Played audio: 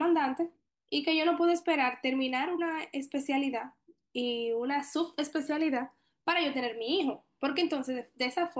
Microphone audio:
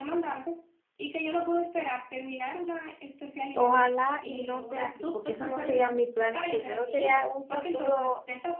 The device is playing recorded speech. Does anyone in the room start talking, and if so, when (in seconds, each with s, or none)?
3.5 s